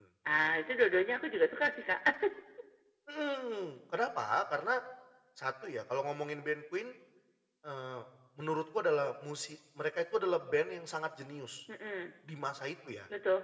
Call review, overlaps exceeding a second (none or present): none